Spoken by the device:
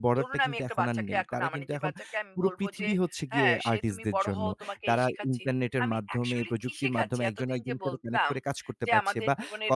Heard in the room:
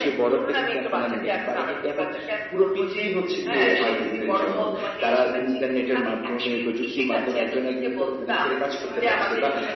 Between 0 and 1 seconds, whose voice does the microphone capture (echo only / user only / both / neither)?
echo only